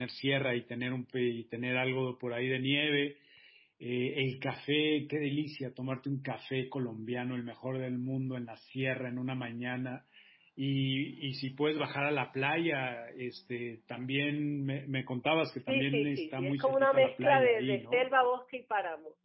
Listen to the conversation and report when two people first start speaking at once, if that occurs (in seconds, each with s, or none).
15.7 s